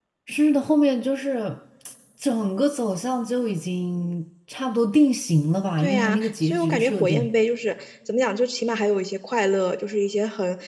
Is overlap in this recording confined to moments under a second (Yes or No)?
No